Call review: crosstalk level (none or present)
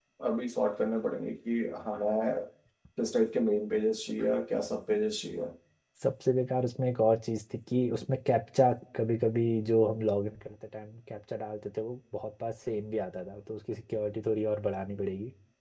none